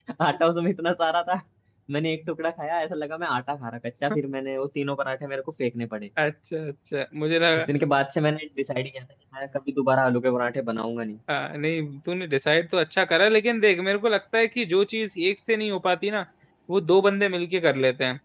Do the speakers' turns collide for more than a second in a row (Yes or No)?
No